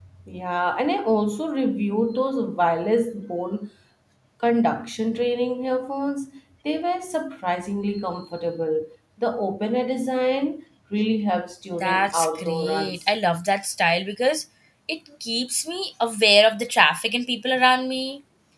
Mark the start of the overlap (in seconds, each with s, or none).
11.8 s